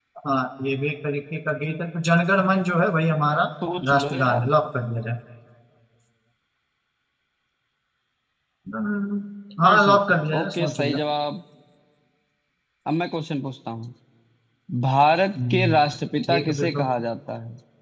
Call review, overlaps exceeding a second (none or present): present